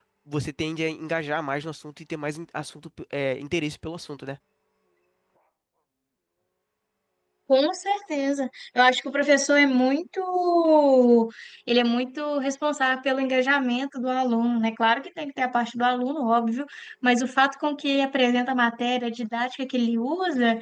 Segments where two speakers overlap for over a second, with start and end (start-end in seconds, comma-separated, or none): none